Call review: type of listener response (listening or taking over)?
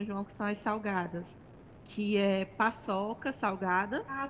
taking over